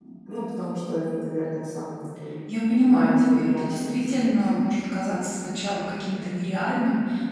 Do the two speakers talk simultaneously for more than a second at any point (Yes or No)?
Yes